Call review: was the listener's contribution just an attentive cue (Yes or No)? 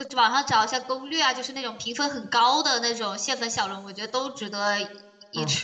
No